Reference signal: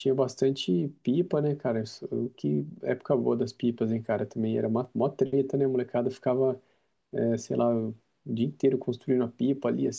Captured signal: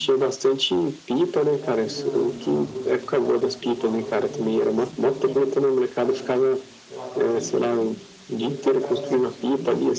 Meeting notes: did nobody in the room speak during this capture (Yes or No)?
No